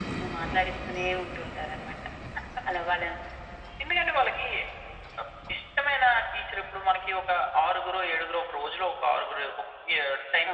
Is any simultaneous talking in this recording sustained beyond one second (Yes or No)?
No